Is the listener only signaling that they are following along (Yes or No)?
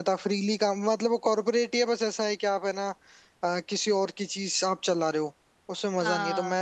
Yes